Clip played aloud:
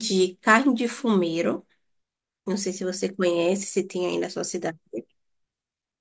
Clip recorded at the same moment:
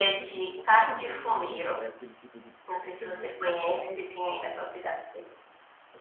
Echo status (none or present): present